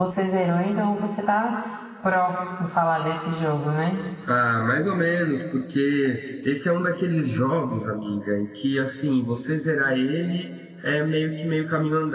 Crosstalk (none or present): none